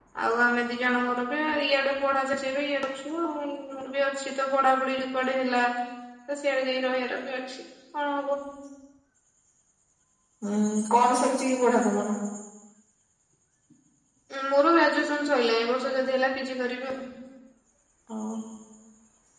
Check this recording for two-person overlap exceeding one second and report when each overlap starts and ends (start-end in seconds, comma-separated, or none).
none